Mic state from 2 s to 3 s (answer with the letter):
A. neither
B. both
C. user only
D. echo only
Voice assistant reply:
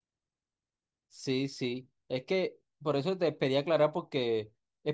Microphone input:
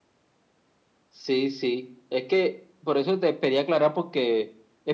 D